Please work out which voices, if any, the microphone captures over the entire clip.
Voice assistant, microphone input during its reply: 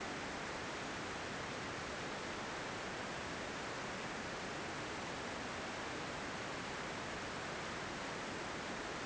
neither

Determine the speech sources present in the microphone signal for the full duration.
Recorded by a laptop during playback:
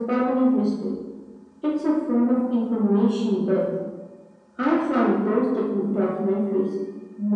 echo only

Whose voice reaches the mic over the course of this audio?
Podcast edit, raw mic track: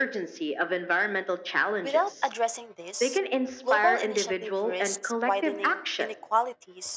both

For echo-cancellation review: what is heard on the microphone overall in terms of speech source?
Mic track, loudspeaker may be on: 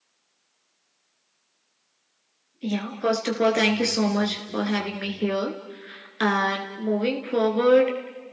both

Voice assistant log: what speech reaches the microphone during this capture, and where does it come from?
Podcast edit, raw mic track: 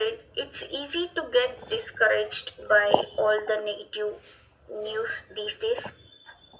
echo only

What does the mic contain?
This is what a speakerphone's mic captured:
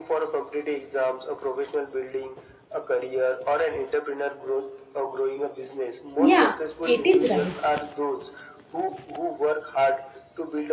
both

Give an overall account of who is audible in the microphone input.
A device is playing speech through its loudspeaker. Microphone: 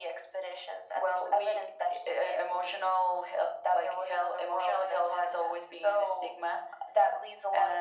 echo only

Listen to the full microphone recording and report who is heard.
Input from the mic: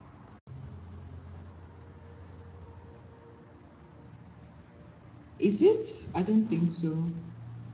user only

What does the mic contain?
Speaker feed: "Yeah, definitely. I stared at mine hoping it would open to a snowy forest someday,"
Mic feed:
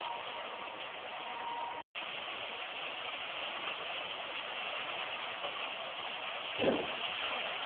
neither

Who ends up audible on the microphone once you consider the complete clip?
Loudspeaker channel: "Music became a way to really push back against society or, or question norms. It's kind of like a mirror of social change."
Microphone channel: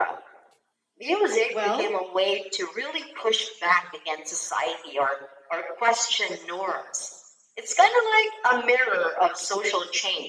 both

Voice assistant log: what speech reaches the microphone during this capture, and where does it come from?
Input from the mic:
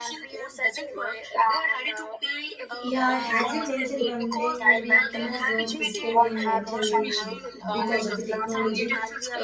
both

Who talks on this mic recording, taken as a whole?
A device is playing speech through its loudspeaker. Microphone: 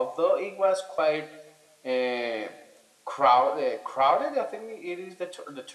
echo only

